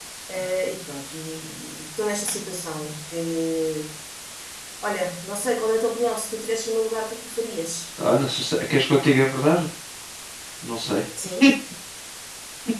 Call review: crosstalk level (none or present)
none